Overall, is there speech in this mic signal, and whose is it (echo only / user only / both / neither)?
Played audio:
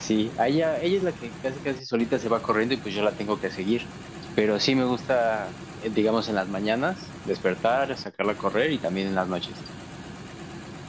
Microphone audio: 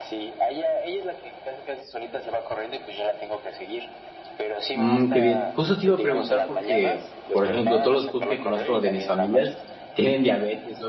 both